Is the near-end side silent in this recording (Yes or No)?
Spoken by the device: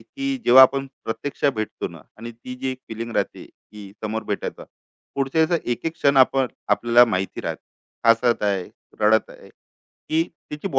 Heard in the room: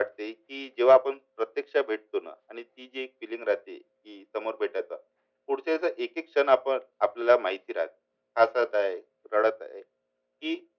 Yes